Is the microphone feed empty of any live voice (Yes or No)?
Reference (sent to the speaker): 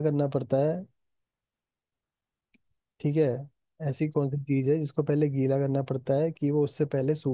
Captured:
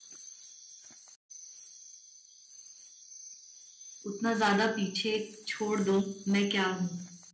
No